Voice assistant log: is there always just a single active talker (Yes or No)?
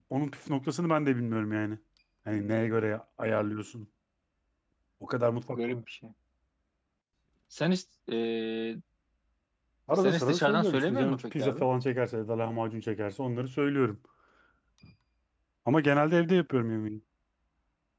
No